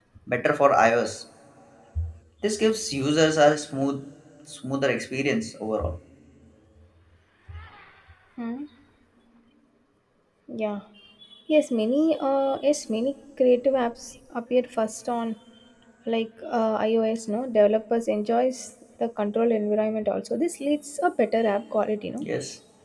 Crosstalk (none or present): none